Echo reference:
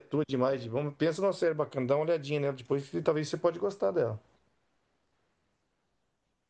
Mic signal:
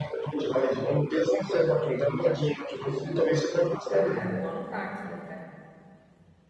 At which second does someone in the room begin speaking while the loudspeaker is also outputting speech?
4 s

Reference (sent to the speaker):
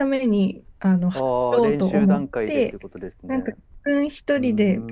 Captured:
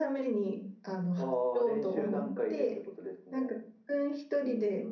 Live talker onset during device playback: none

